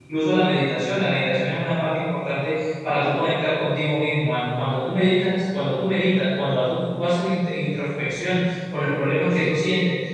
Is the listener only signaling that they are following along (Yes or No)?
Yes